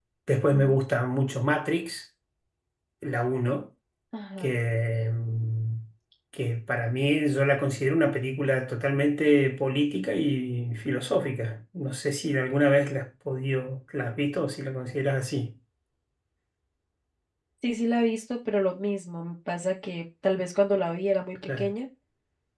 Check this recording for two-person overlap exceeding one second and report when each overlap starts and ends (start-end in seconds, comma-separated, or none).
none